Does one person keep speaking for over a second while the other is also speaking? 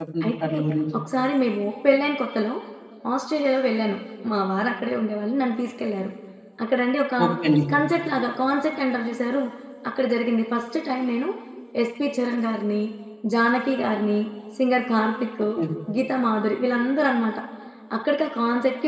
No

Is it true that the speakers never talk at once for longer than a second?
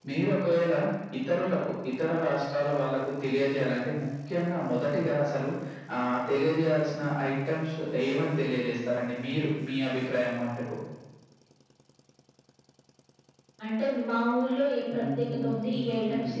No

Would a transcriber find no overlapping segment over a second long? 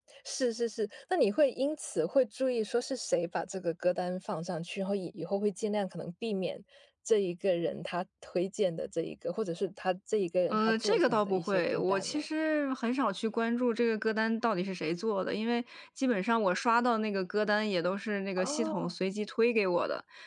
No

